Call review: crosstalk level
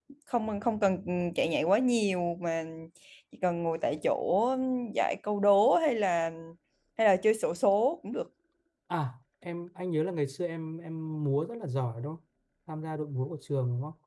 none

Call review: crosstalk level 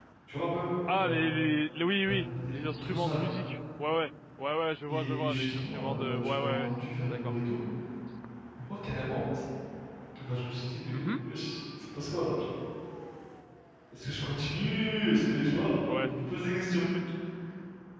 present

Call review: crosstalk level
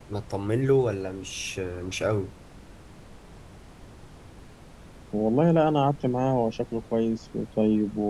none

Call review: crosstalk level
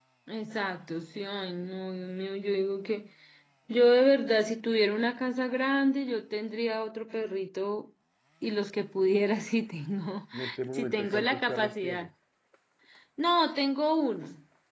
present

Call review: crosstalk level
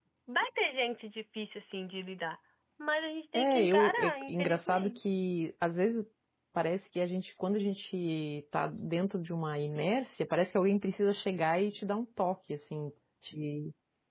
present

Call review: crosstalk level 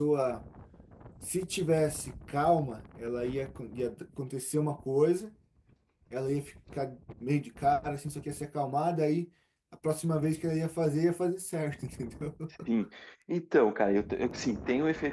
none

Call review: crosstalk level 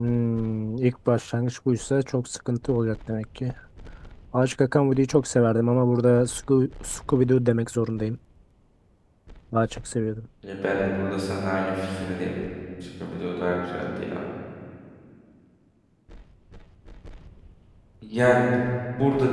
none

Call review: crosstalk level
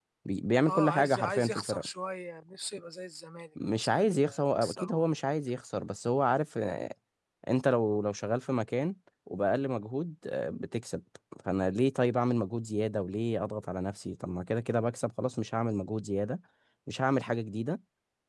present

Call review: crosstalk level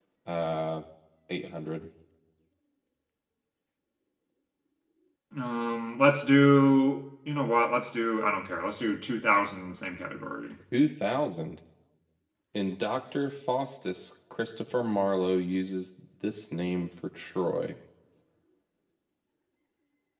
none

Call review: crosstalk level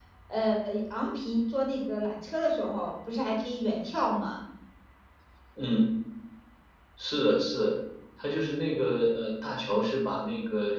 none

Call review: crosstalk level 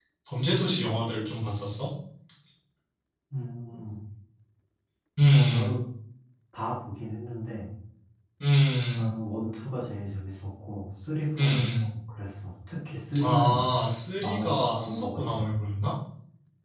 present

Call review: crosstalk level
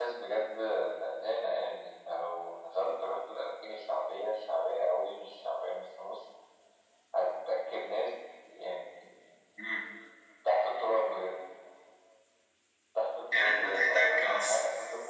present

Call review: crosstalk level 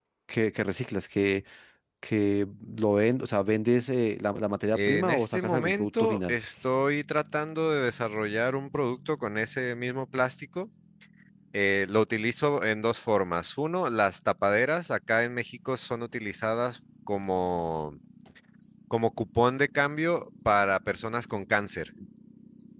present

